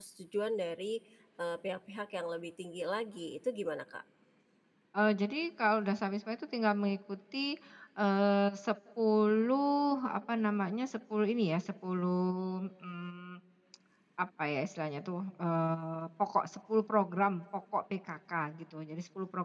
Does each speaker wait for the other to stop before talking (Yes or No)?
Yes